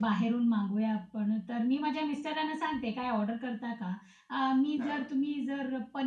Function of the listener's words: listening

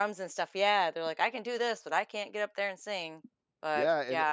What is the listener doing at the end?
taking over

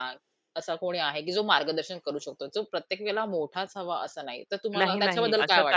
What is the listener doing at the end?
taking over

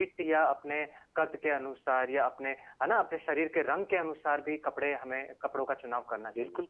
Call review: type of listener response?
taking over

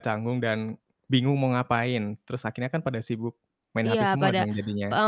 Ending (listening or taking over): taking over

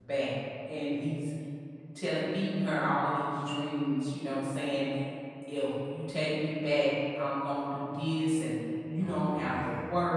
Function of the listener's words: listening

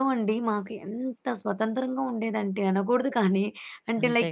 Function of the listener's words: listening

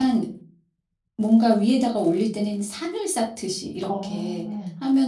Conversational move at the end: listening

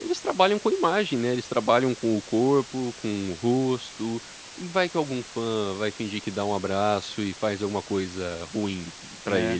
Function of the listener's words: taking over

